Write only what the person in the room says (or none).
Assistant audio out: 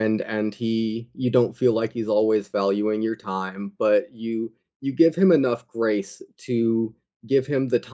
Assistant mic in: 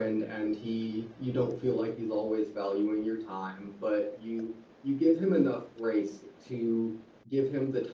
none